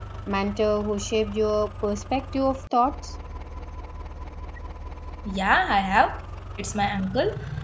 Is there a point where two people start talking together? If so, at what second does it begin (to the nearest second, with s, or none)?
none